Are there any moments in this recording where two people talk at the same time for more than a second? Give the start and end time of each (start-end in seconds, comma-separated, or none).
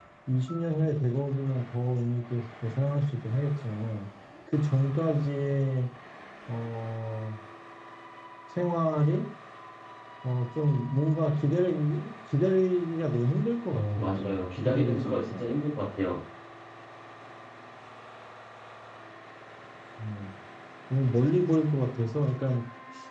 13.7-15.4